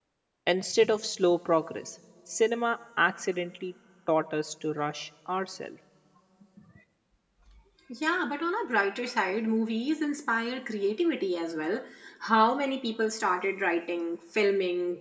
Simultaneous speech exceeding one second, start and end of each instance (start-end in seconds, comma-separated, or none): none